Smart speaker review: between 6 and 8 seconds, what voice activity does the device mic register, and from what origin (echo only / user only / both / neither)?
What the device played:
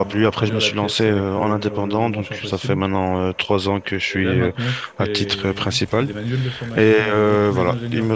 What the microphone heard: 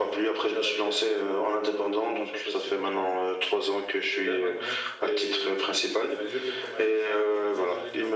echo only